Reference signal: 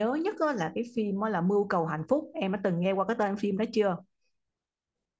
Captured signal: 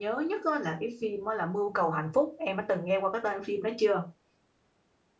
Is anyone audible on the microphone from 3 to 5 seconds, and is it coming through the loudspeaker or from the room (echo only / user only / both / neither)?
echo only